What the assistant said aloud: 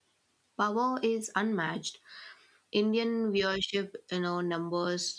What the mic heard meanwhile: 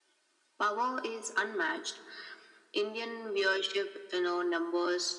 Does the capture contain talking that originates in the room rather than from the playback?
No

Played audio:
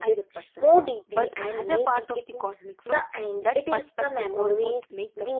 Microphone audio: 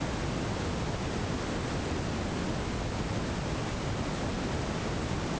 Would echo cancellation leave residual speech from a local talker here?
No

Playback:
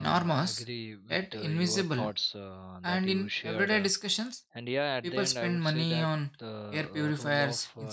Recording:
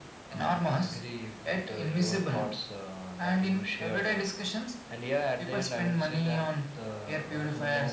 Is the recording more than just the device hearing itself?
No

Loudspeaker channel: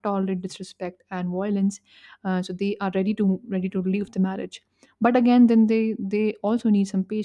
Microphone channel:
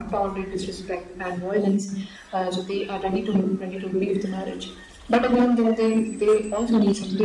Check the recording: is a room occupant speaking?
No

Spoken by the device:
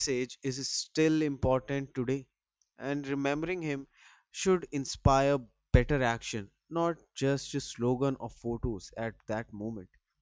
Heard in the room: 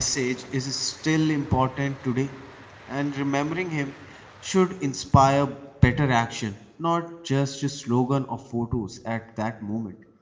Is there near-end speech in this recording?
No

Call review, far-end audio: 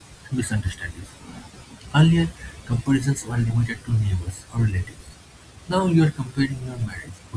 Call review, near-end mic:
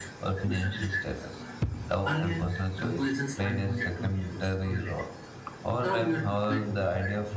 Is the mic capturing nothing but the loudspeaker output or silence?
No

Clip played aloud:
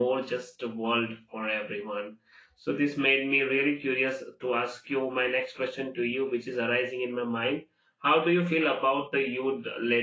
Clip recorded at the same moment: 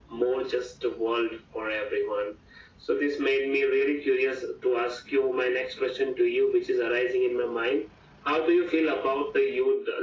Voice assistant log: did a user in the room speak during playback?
No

